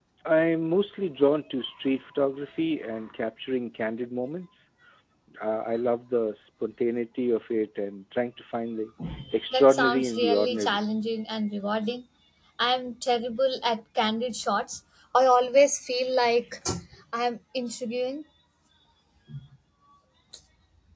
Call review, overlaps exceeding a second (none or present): present